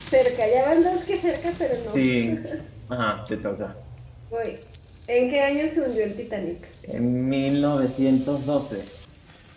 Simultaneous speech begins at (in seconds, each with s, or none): none